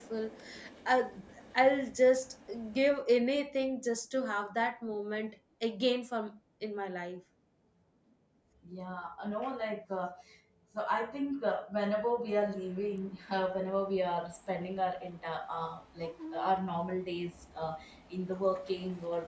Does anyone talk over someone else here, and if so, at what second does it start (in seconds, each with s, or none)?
none